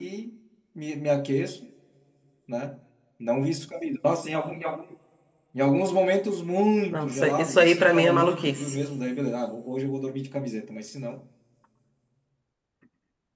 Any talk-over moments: Yes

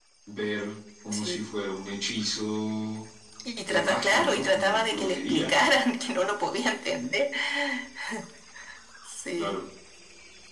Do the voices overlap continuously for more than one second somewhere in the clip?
Yes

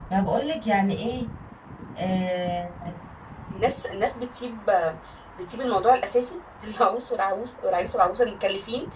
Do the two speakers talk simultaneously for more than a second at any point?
No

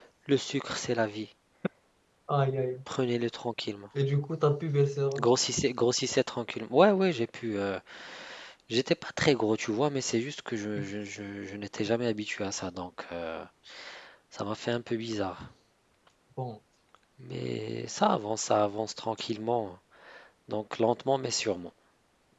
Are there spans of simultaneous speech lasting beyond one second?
No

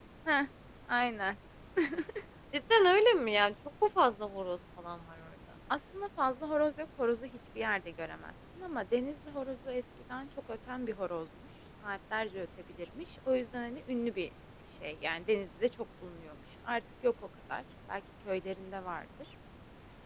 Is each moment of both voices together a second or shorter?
Yes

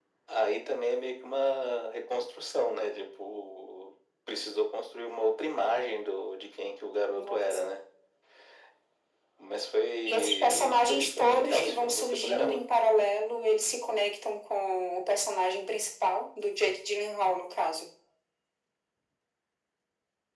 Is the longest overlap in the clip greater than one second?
Yes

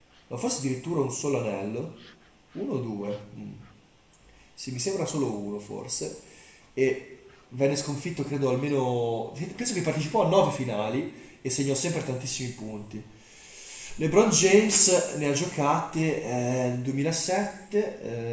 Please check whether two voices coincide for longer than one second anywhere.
No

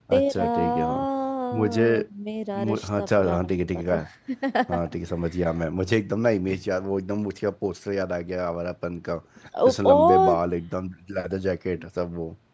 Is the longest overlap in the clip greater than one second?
Yes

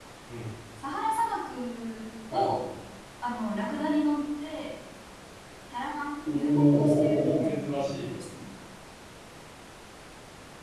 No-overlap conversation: No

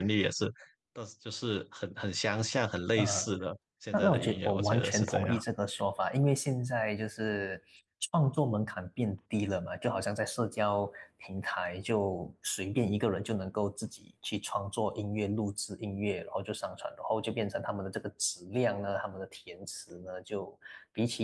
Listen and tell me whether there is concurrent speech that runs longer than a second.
Yes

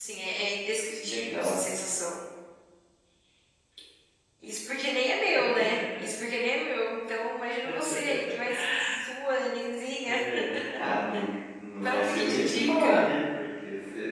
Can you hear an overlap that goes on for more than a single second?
Yes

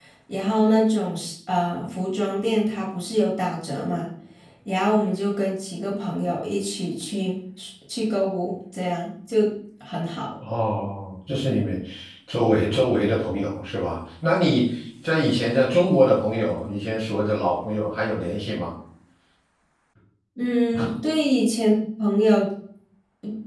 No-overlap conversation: Yes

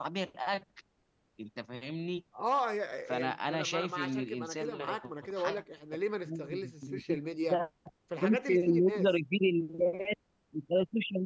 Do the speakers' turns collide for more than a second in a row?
Yes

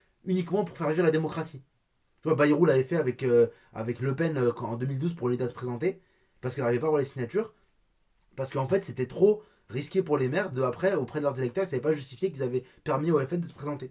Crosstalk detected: No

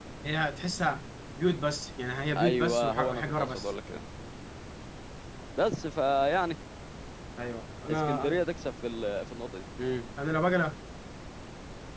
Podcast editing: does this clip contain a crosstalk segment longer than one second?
Yes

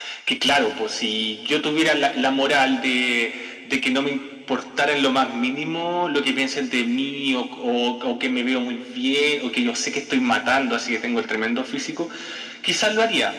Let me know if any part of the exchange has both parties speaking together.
No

